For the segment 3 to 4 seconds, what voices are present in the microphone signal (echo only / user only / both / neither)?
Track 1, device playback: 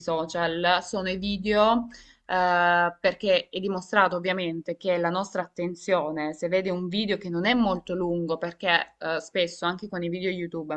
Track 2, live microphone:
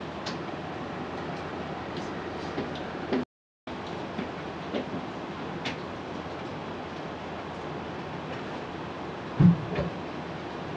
neither